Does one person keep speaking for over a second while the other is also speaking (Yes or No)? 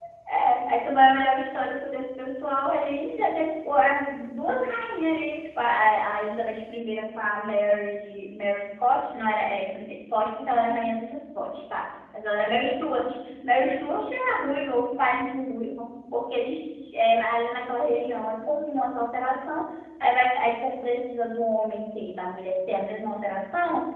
No